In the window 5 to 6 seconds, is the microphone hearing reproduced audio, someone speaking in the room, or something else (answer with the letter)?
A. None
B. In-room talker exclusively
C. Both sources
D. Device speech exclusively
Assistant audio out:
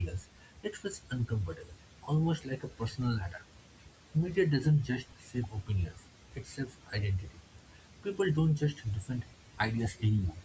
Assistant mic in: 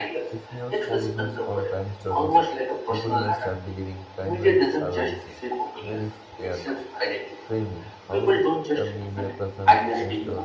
C